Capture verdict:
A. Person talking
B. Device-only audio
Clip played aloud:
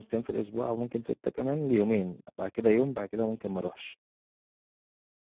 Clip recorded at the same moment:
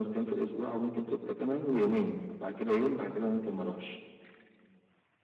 B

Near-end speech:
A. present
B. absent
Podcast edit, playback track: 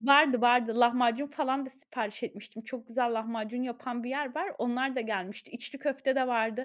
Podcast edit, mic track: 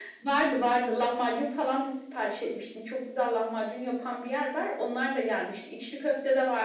B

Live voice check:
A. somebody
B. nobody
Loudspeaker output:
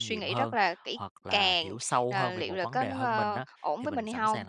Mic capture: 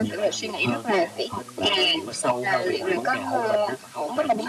A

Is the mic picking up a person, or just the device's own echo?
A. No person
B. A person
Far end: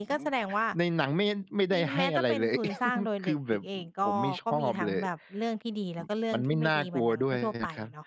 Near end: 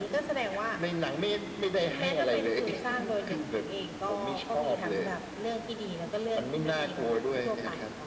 A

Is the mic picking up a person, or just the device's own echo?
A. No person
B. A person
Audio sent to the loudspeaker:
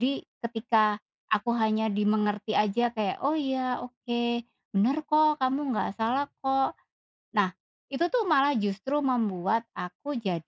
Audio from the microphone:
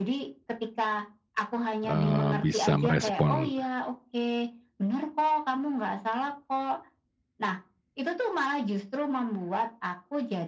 B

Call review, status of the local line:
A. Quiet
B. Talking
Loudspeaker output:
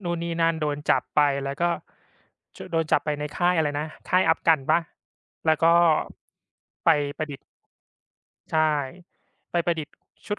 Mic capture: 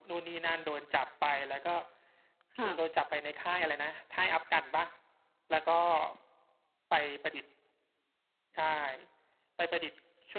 B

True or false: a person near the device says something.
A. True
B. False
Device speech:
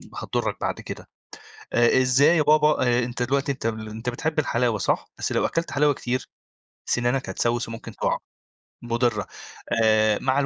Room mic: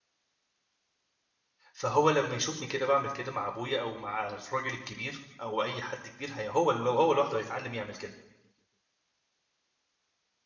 A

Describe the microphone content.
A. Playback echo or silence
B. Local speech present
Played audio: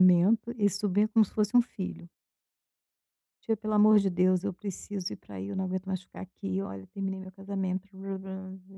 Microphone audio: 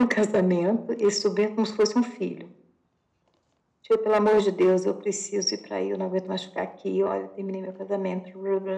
A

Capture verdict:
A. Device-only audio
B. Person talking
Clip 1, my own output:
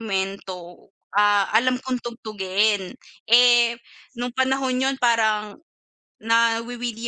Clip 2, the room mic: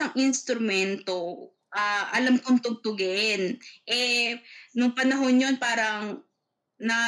A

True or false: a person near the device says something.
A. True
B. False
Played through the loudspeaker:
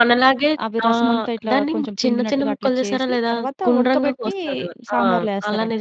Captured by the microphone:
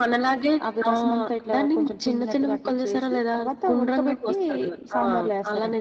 B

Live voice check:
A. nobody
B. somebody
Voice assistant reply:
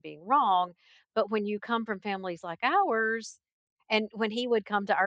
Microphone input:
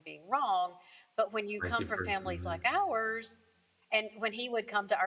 B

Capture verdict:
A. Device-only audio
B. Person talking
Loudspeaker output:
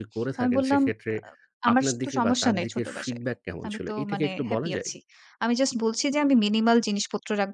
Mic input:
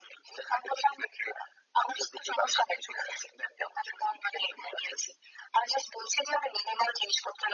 A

